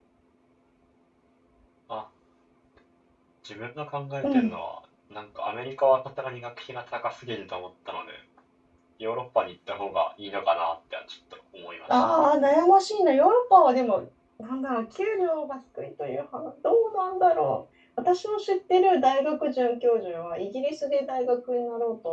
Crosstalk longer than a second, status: none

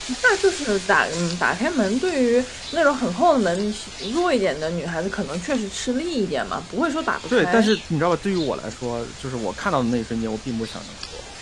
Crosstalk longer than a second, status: none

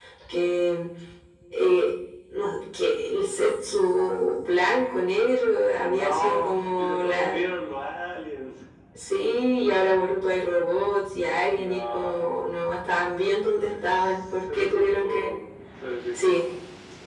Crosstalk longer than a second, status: present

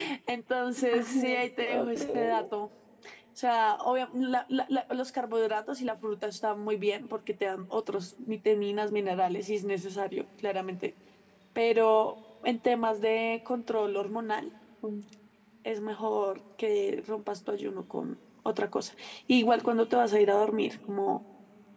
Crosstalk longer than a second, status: present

